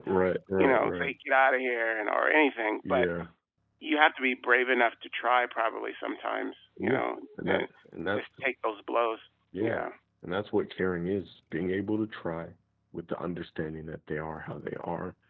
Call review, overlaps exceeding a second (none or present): none